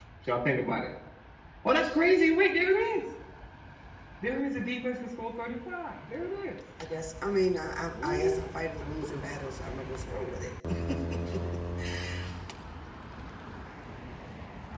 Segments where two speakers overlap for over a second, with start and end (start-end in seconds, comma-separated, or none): none